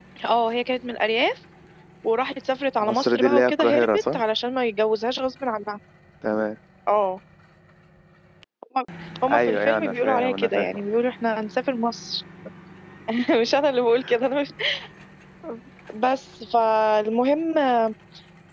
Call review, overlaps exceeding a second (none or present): present